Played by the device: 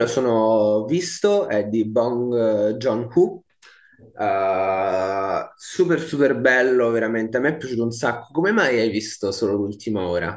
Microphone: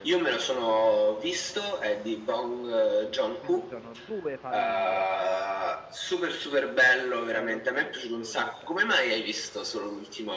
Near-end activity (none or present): present